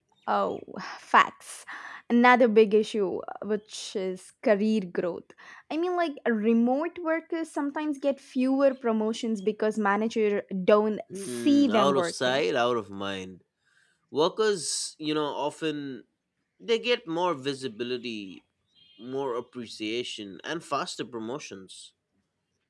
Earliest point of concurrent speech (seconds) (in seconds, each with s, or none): 11.1 s